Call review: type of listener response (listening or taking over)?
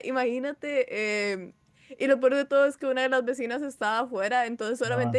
listening